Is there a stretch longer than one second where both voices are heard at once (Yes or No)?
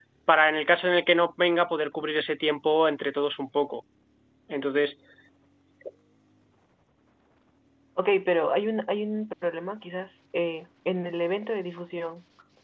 No